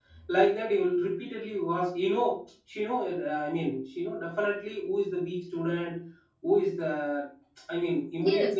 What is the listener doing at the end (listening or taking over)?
taking over